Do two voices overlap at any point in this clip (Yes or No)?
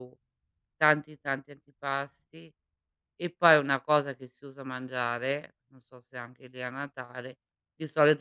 No